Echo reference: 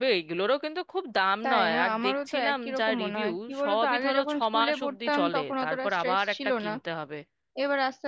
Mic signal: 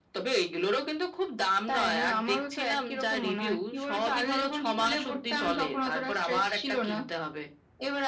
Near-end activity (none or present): none